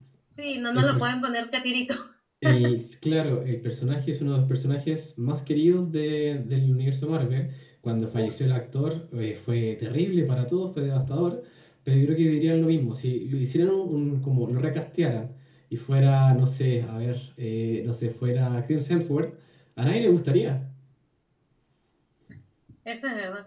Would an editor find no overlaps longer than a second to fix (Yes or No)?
Yes